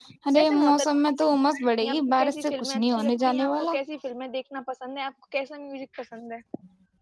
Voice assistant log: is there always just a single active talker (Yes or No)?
No